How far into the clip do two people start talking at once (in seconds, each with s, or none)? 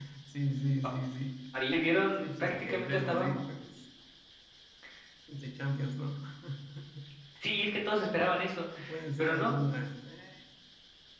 2.2 s